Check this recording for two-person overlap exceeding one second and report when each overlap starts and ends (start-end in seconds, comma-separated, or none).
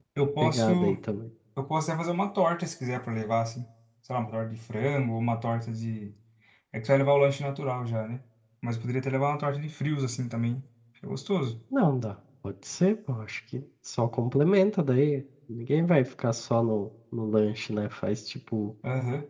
none